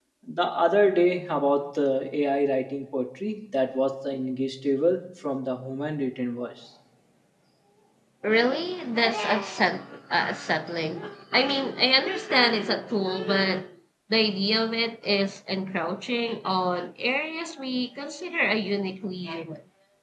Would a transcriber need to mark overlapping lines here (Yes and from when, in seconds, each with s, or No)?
No